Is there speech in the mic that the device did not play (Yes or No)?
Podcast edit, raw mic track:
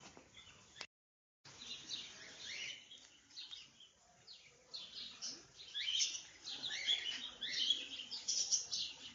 No